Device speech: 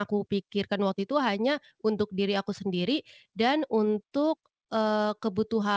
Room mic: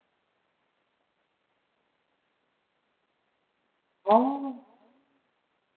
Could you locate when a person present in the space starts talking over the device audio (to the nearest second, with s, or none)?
4 s